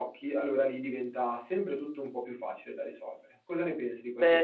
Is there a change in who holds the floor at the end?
Yes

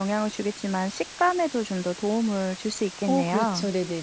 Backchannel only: No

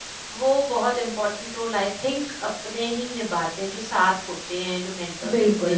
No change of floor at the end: No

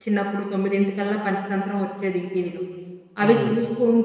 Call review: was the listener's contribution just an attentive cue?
Yes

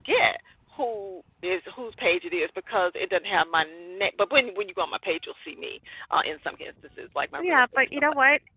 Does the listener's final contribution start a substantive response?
Yes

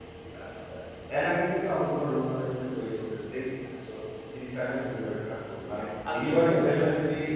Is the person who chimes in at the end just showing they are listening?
Yes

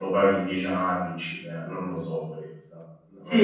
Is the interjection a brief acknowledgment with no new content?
No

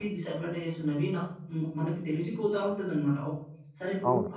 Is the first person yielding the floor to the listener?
No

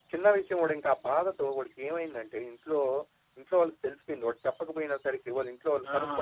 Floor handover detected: Yes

